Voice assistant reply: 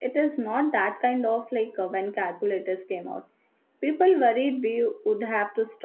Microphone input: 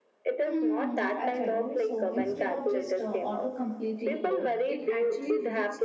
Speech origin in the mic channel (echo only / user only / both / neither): both